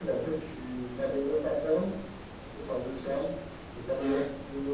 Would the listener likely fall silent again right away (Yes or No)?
Yes